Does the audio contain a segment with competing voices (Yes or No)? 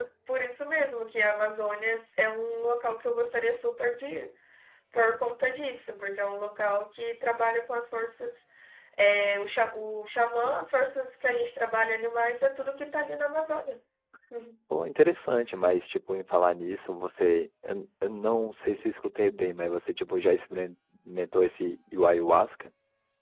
No